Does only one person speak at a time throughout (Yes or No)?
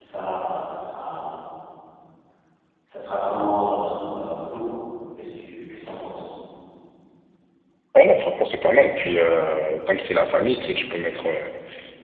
Yes